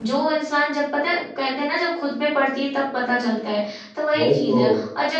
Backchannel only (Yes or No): Yes